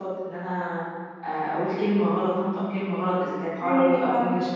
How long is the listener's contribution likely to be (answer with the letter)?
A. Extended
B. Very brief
B